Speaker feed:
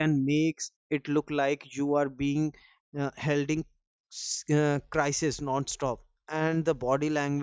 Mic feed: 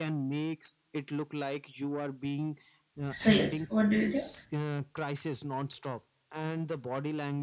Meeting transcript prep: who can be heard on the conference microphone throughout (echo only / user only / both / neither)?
both